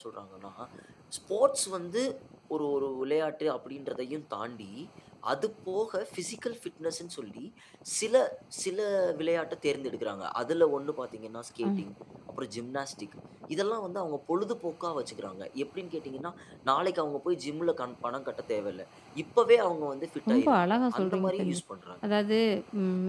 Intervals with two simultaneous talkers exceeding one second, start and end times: 20.3-21.6

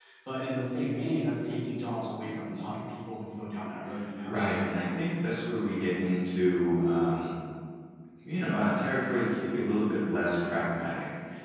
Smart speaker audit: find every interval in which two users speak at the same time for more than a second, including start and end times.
none

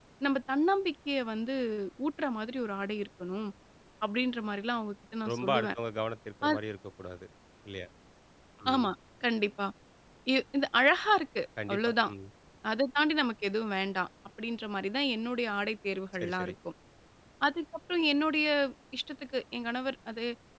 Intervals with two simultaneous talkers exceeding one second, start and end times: none

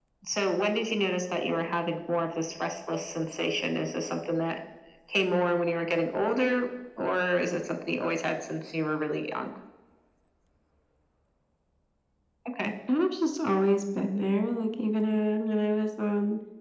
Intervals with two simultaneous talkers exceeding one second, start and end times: none

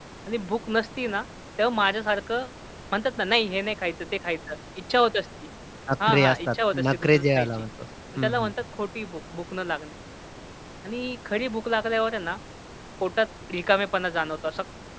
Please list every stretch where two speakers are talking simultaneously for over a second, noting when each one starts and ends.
6.1-7.6

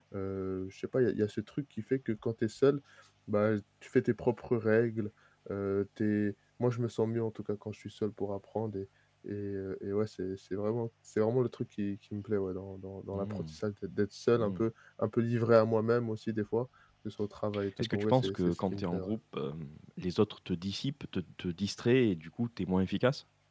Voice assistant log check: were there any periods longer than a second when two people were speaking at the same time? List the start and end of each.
17.8-19.1

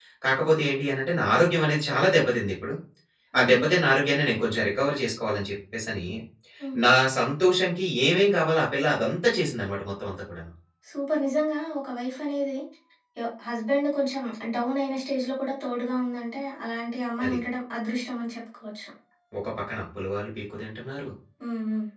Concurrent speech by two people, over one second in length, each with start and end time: none

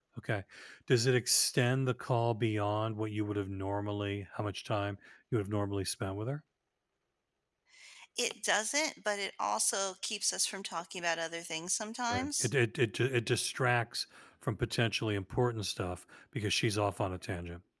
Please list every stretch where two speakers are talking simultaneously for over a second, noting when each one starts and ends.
none

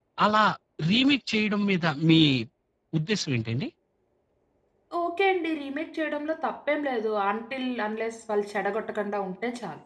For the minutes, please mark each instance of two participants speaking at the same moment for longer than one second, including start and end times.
none

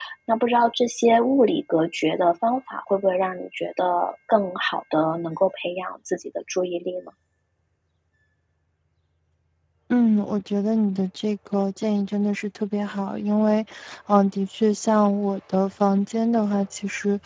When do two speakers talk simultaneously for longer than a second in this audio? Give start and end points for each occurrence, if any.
none

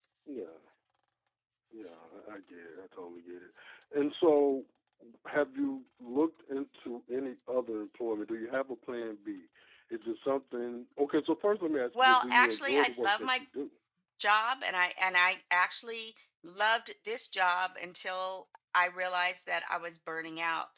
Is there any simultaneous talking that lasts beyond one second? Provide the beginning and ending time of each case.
12.0-13.4

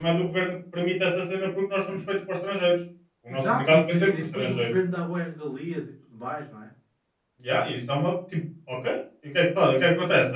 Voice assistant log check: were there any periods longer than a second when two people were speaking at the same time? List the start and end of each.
3.3-4.7

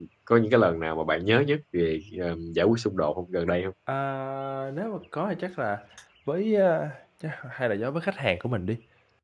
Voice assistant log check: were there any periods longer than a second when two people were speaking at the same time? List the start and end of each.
none

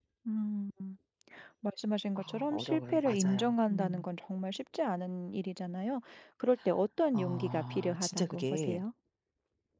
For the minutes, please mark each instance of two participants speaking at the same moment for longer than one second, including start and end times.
2.1-4.0, 7.1-8.8

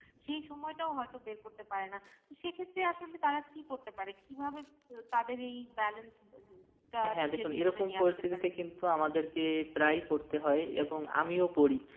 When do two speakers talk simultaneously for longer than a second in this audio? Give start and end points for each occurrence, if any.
7.1-8.4

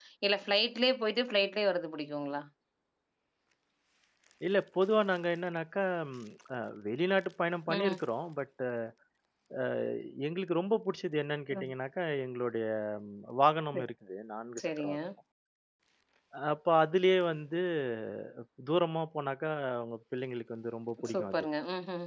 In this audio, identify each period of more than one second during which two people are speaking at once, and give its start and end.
none

